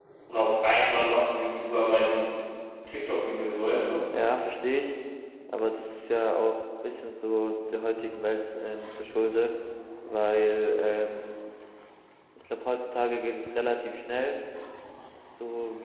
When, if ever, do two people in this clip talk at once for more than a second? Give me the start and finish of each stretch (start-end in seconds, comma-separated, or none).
none